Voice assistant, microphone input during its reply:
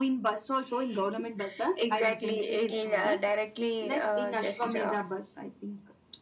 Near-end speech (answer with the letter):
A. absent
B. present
A